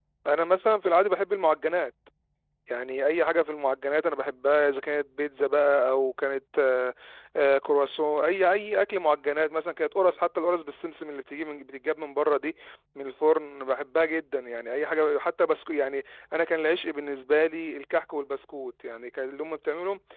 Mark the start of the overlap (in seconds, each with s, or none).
none